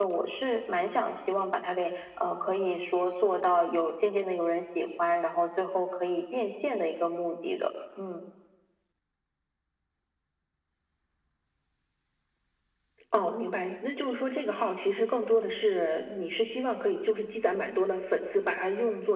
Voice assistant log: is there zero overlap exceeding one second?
Yes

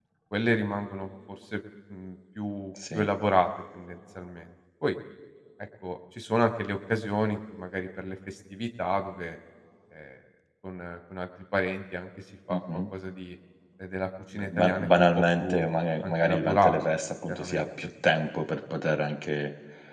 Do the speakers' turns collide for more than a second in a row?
Yes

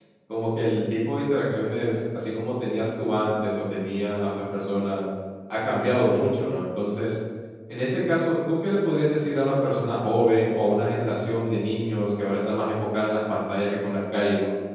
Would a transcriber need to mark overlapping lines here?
No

